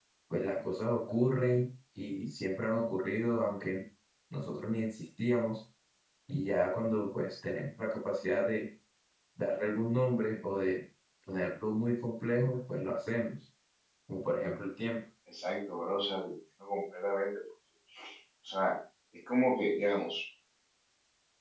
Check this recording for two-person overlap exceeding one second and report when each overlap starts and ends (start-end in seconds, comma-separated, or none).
none